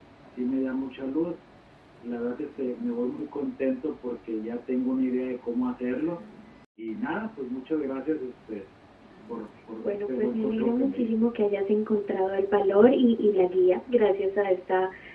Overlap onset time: 10 s

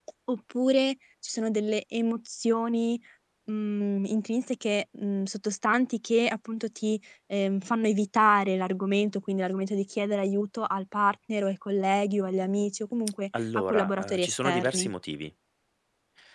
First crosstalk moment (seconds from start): 13 s

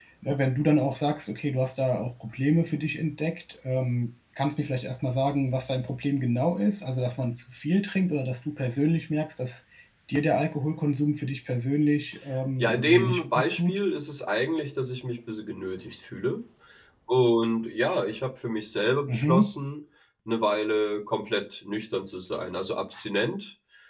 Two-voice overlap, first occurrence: 13 s

